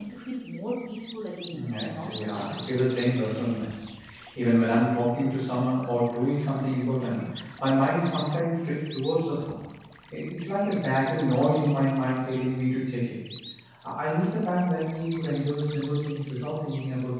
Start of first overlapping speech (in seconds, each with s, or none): 1.5 s